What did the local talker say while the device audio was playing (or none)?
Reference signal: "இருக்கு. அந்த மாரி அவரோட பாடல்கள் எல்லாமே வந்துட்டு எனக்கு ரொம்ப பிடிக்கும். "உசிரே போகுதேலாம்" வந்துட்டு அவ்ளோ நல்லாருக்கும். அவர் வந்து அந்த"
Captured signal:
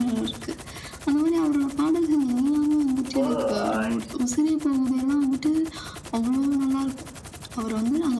இப்போ அ